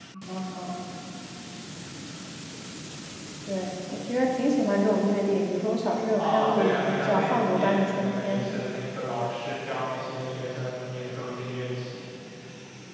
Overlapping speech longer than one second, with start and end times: 6.2-8.5

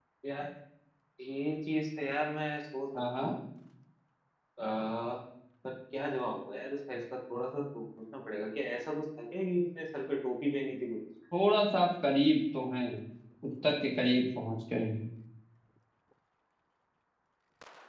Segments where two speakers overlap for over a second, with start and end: none

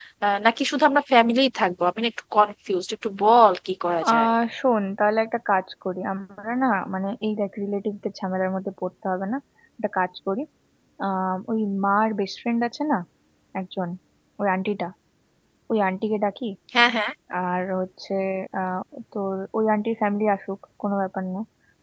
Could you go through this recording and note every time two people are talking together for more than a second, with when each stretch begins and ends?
none

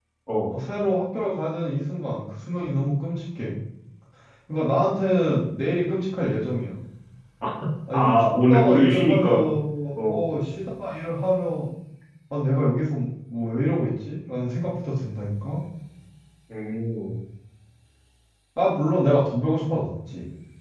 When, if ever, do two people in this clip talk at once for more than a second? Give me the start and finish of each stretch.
7.9-9.5

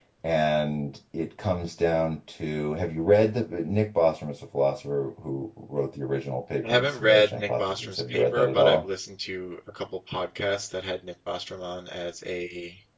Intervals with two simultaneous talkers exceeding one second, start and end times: 6.6-8.8

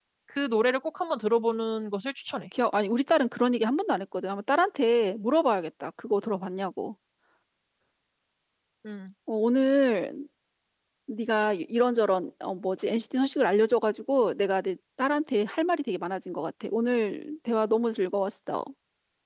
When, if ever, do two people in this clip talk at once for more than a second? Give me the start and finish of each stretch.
none

